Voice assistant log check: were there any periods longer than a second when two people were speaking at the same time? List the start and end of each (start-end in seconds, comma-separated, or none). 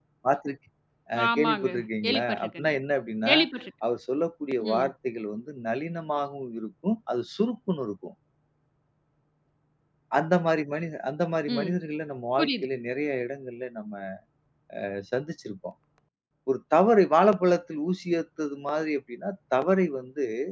1.2-2.7